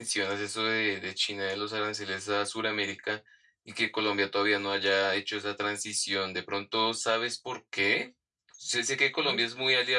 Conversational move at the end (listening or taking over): listening